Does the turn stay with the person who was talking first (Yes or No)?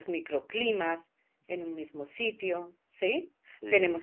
Yes